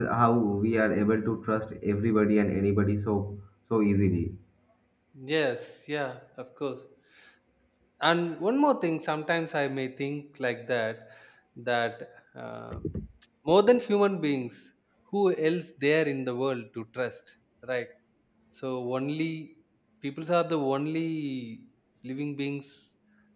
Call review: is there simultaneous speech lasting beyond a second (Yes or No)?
No